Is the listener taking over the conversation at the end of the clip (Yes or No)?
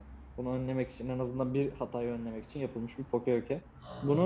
Yes